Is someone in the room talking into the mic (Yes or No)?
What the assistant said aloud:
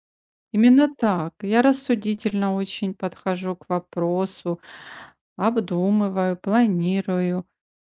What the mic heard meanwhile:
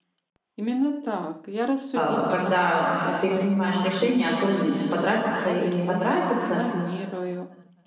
Yes